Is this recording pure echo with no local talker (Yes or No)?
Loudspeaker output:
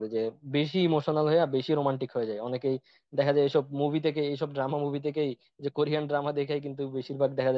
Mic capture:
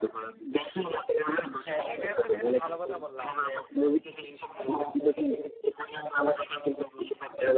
No